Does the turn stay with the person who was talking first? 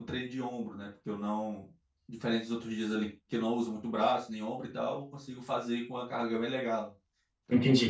No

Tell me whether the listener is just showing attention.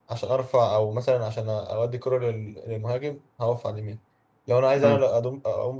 Yes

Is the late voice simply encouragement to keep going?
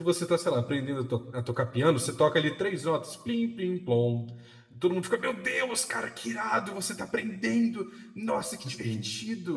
No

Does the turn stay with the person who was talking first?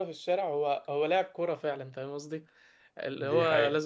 Yes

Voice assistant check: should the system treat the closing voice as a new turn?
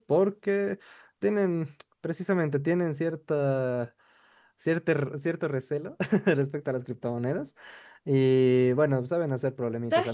Yes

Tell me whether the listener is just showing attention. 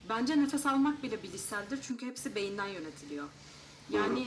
Yes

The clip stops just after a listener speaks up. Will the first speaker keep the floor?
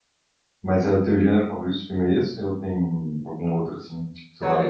No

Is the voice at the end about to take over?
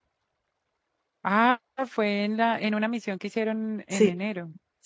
Yes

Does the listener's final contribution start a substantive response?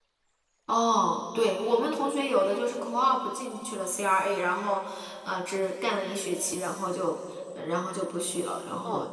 Yes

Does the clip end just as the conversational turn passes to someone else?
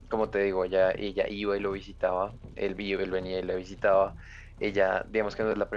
No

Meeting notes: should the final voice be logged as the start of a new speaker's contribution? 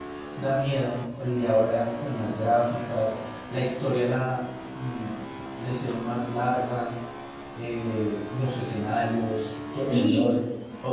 Yes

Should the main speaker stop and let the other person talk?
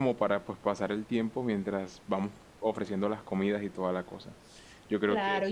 Yes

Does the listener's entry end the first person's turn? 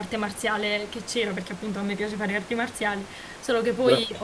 No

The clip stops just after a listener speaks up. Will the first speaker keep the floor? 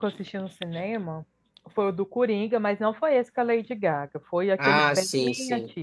No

